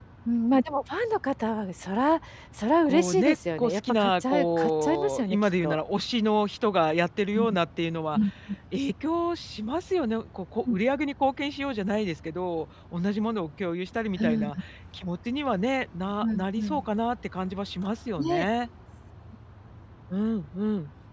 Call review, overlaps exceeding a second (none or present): present